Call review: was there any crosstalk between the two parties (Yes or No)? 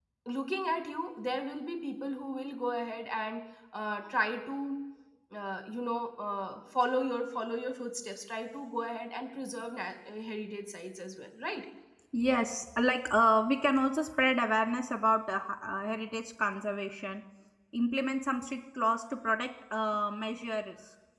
No